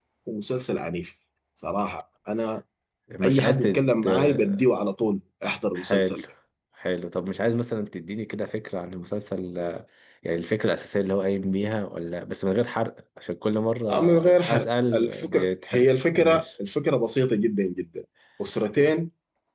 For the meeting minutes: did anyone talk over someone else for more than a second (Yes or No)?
Yes